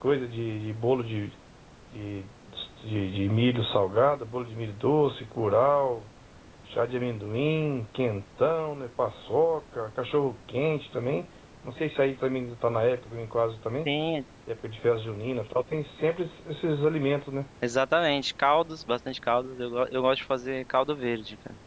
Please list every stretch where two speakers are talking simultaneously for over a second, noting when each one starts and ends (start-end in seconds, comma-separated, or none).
none